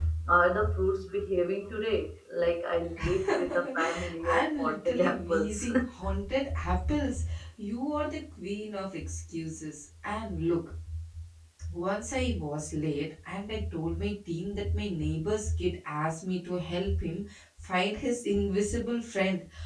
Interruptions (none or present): present